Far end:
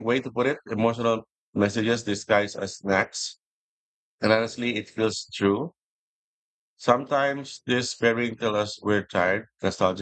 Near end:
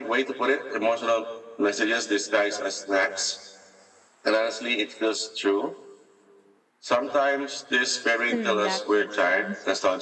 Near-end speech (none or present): present